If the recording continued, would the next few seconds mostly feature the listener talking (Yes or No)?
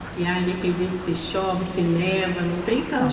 Yes